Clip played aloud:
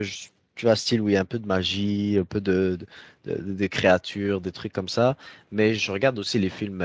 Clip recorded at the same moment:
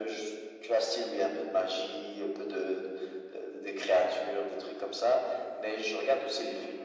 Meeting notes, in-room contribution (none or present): none